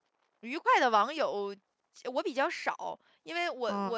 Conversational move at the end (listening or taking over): taking over